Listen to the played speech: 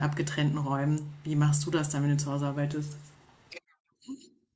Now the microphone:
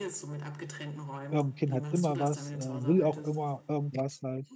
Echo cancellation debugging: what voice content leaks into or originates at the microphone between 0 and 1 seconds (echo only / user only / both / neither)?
echo only